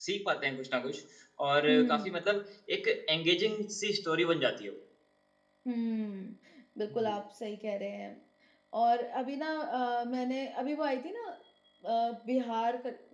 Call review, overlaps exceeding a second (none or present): none